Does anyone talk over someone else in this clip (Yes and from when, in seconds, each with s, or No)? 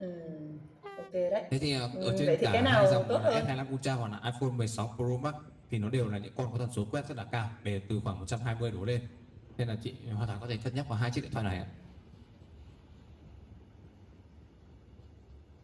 Yes, from 2.0 s